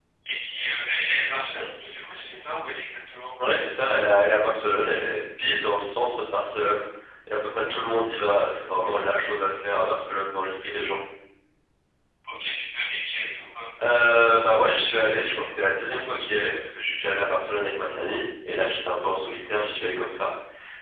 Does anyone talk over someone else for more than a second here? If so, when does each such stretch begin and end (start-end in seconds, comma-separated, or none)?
none